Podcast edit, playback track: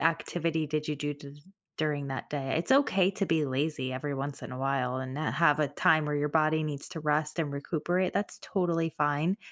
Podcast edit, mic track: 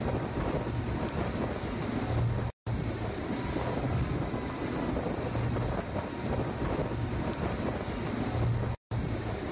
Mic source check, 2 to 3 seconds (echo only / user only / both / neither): neither